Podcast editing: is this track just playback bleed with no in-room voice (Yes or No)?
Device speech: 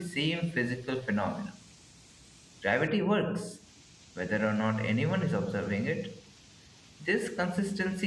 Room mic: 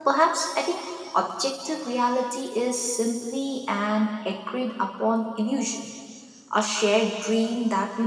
No